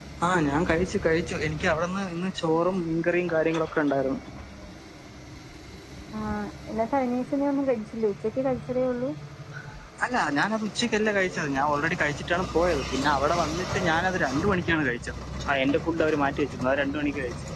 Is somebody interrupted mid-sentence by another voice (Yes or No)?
No